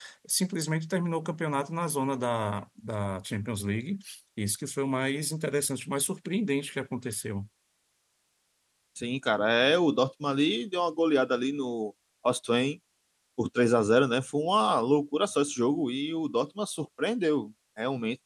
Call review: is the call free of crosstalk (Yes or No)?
Yes